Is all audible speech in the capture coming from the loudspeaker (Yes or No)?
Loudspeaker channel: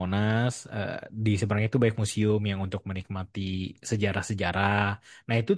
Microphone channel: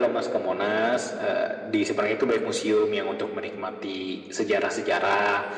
Yes